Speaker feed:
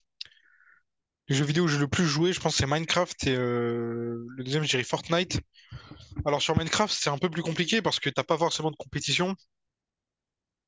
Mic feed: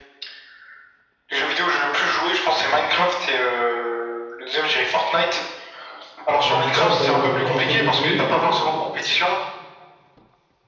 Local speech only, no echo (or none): Je rentre du taf, voilà, la journée m'a un peu gonflé.